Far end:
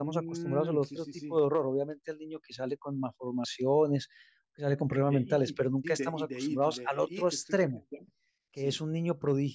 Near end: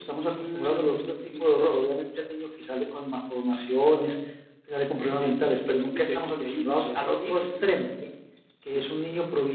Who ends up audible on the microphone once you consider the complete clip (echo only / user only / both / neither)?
echo only